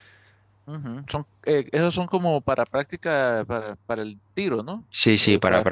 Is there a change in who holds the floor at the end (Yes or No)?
Yes